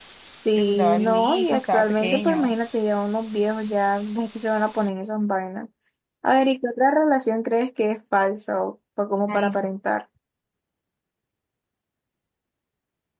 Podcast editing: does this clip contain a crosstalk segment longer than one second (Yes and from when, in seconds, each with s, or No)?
Yes, from 0.6 s